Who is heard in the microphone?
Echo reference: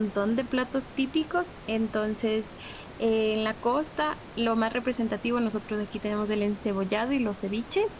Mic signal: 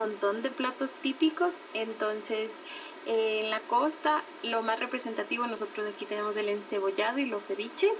echo only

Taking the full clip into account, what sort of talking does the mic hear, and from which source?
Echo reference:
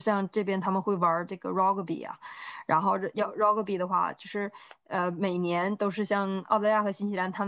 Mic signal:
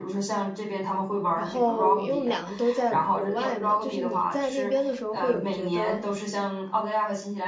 both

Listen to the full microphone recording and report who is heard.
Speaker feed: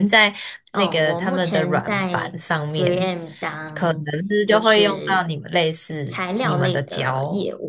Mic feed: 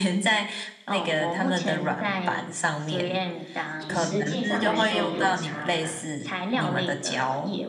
both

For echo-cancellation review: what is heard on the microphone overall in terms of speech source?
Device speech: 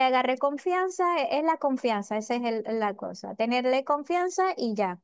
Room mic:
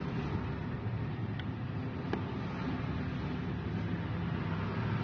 neither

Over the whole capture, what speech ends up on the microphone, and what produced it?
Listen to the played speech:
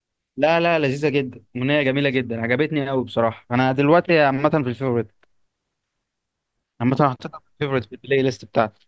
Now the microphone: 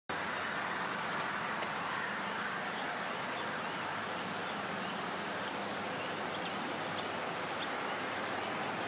neither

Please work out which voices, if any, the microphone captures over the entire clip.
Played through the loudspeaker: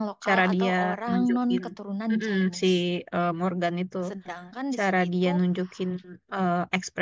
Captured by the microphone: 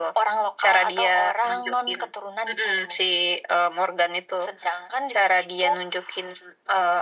echo only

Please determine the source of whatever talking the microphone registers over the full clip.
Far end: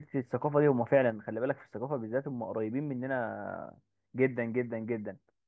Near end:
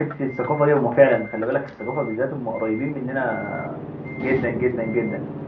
echo only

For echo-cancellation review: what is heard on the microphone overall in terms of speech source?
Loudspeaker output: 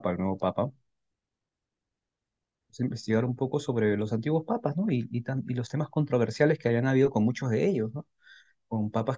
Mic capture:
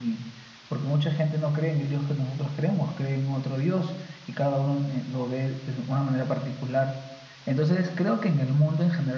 user only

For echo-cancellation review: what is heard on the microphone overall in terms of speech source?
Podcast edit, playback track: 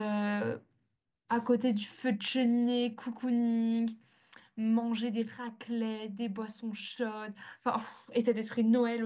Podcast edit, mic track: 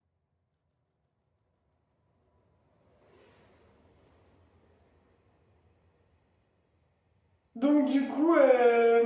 user only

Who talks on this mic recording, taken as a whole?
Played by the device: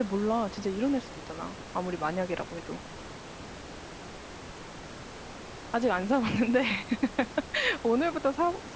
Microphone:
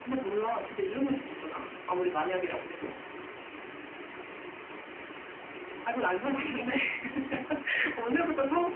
echo only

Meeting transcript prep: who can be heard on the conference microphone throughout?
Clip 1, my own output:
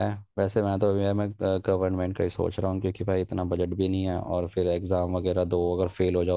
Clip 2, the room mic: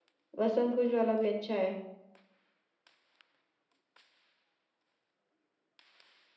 user only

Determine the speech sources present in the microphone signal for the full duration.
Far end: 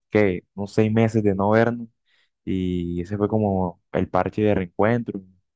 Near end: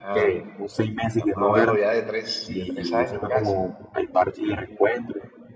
both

